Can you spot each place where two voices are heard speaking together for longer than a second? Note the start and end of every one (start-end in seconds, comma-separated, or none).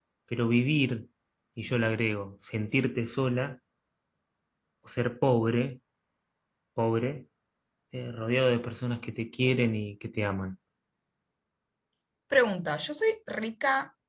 none